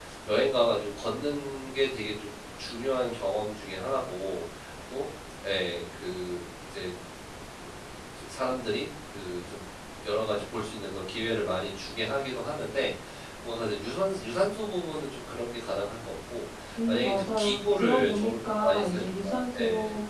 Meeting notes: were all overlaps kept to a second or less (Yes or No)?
No